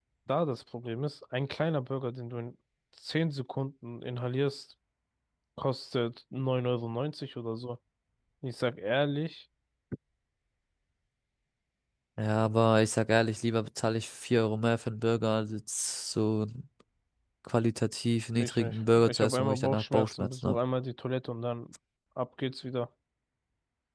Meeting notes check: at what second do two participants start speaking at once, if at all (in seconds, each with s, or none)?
18.4 s